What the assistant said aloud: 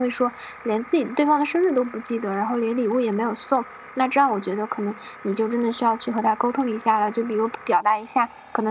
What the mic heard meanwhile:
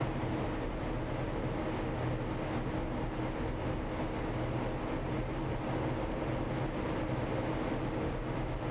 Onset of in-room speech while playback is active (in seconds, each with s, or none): none